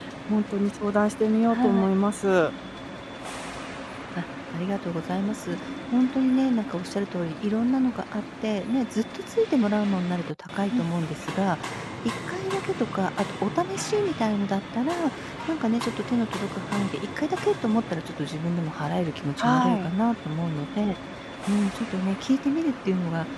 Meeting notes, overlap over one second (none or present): none